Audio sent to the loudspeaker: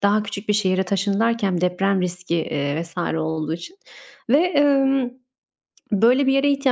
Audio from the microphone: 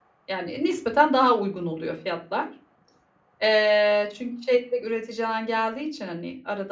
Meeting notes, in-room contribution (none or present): present